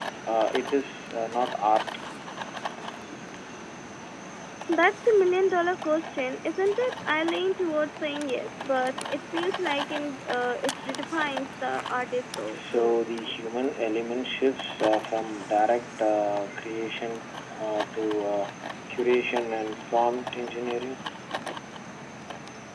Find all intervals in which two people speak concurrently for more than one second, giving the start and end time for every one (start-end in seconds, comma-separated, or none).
none